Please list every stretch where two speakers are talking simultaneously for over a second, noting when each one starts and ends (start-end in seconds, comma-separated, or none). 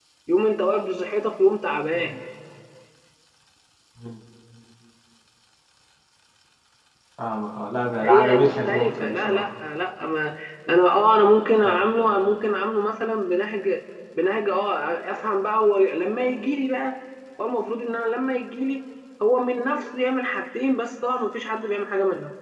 8.0-9.5